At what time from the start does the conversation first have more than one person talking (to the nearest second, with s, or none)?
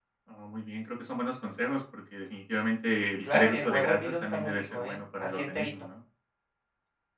3 s